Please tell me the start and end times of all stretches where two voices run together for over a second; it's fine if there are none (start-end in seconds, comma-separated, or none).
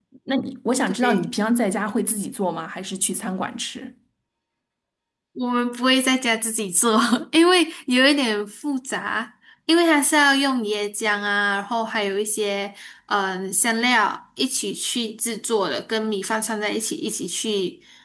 none